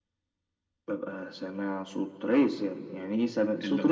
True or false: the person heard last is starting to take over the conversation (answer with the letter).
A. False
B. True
B